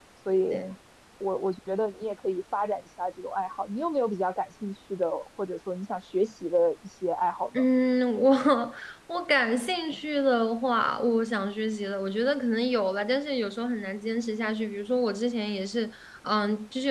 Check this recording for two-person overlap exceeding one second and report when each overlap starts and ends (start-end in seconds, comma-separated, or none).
none